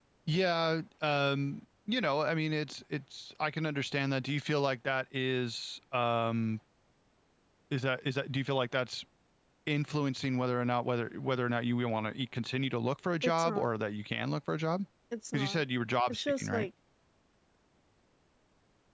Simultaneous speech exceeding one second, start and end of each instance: none

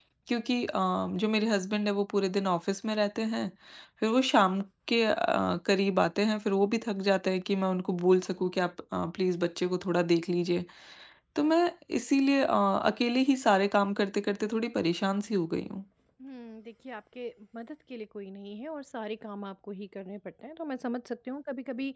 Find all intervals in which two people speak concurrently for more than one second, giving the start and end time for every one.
none

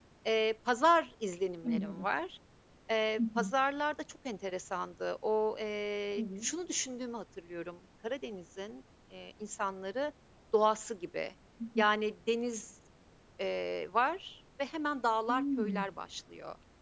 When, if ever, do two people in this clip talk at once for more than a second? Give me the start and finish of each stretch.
none

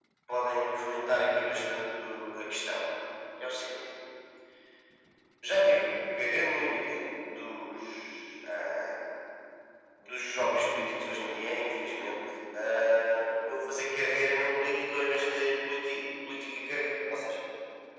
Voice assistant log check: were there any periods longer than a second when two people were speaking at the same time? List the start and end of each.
none

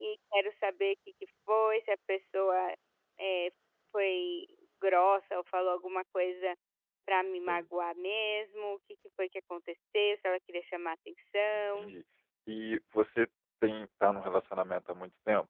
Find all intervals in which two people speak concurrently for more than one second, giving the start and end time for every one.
none

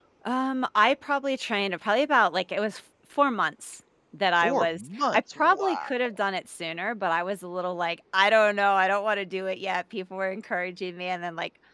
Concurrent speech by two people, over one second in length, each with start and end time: 4.4-5.9

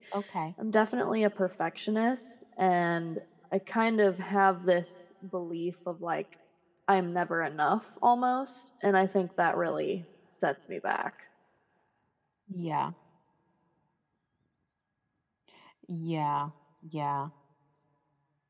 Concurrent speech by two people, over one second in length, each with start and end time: none

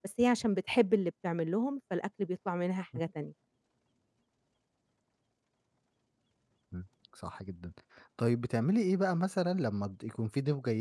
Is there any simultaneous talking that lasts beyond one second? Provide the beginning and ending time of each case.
none

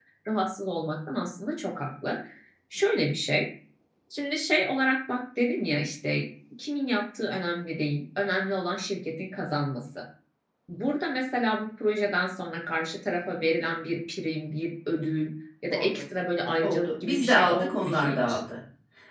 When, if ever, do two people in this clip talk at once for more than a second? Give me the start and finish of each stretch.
16.6-18.4

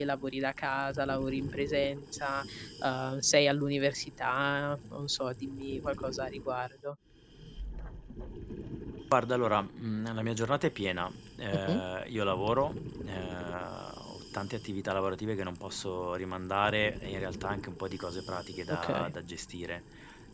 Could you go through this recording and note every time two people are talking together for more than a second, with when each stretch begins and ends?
none

